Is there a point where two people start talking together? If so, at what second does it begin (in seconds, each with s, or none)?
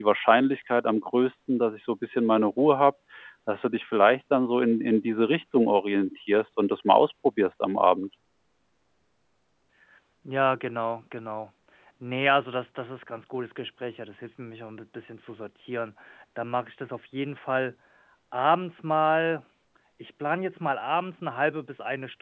none